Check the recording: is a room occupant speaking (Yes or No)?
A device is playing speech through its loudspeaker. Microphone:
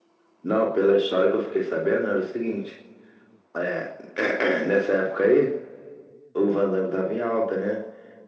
No